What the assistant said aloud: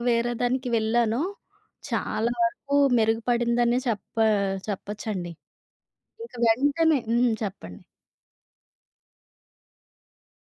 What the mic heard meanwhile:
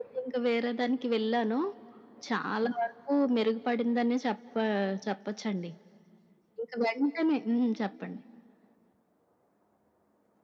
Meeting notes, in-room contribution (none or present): none